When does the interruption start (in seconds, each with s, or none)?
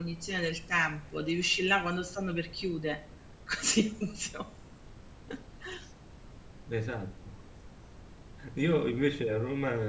none